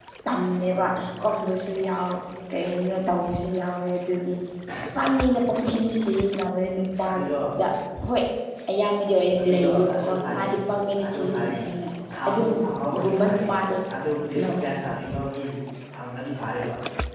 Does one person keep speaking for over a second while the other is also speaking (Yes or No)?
Yes